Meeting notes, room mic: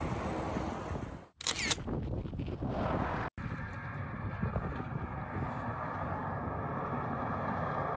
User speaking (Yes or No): No